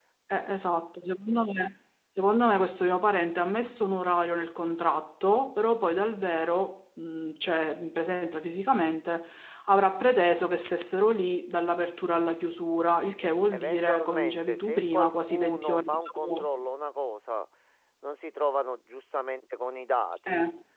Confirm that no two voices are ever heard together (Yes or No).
No